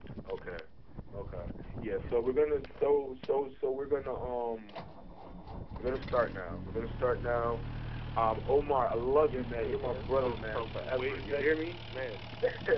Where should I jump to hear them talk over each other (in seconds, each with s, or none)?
9.3 s